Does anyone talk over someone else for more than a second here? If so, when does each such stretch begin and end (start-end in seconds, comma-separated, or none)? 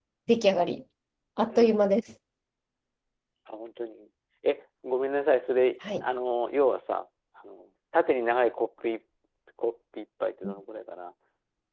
none